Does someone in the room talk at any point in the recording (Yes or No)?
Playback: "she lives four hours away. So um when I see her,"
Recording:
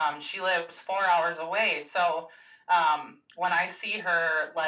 No